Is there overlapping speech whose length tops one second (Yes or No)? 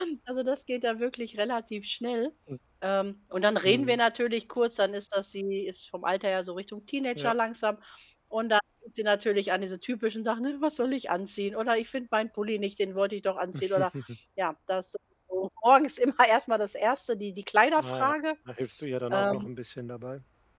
No